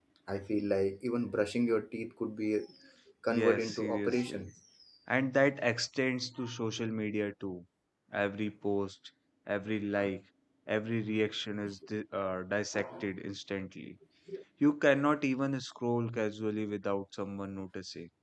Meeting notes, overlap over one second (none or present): present